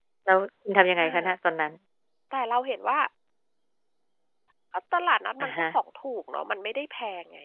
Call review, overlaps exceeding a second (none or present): none